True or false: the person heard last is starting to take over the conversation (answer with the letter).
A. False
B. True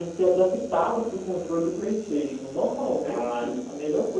A